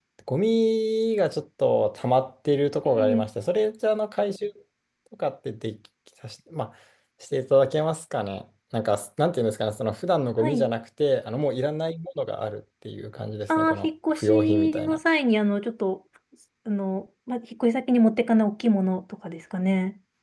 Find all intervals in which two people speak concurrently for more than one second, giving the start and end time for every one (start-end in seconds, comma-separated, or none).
13.6-15.0